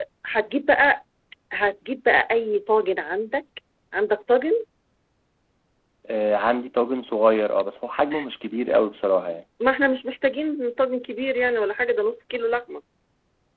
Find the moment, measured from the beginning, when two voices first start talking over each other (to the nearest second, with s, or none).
none